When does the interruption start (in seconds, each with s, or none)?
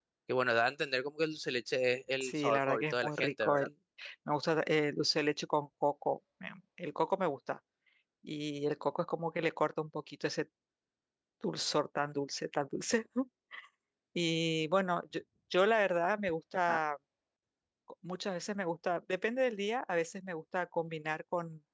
2.2 s